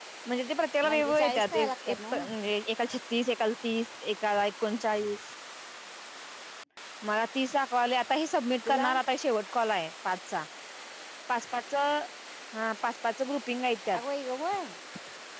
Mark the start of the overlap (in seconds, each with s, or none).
0.8 s